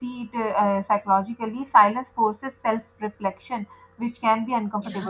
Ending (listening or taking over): listening